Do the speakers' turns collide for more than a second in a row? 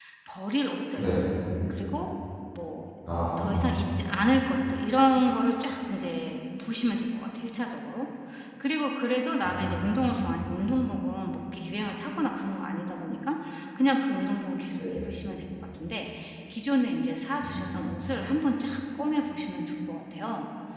No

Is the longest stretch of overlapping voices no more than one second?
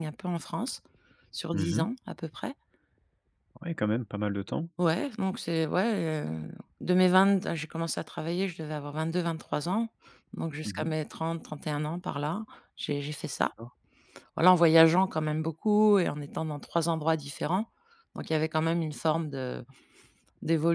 Yes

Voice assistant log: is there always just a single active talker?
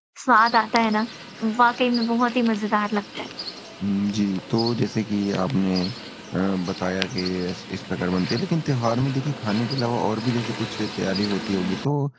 Yes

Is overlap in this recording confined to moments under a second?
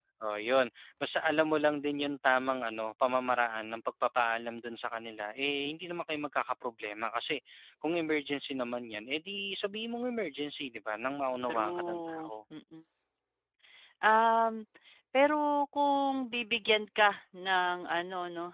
No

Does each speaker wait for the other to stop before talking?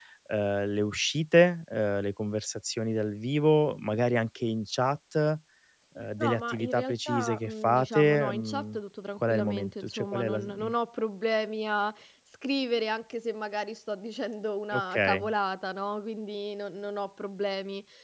No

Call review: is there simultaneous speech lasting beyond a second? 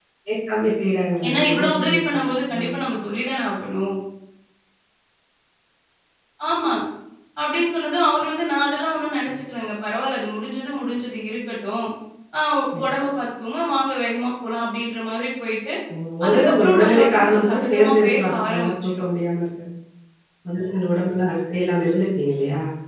Yes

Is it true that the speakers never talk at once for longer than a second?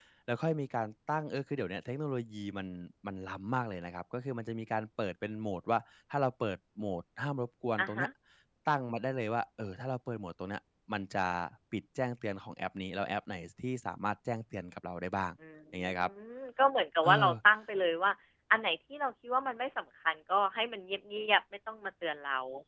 Yes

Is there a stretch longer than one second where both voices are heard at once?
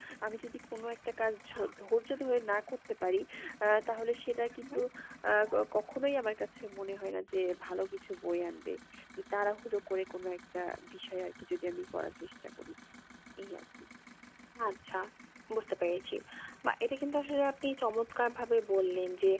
No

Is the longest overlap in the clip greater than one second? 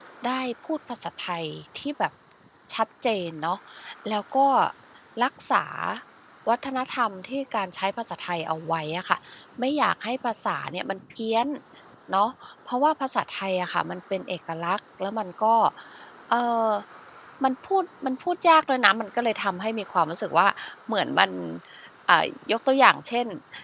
No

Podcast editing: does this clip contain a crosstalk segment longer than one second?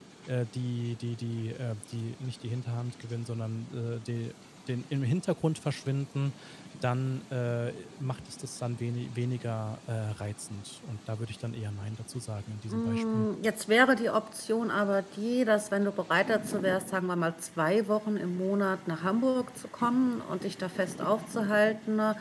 No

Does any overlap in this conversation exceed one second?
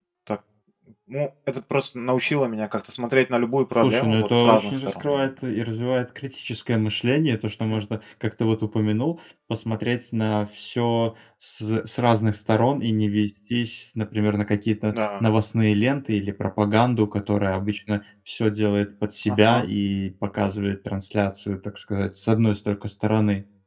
Yes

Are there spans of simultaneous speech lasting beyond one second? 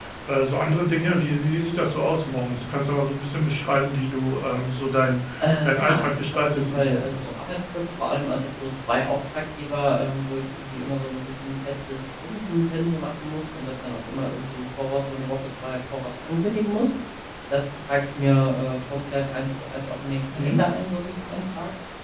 Yes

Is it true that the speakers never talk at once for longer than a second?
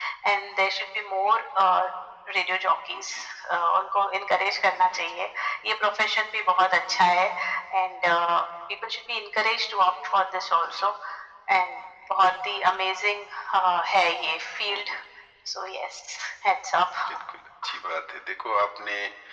Yes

